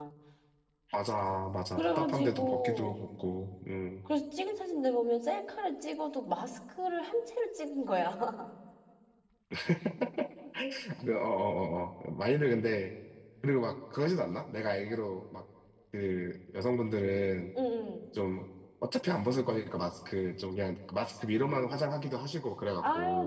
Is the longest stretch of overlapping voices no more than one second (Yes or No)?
No